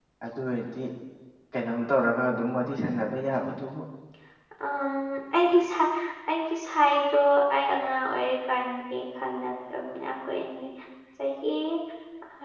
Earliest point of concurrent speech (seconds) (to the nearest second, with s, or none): none